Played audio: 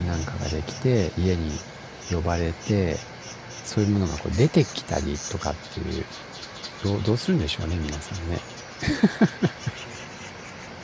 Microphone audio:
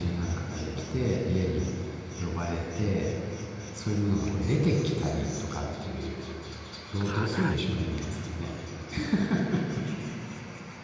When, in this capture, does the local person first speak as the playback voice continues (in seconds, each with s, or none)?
7.0 s